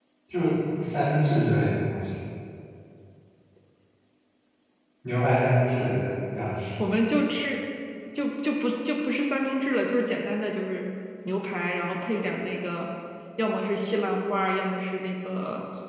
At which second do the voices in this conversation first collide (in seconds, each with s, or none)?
none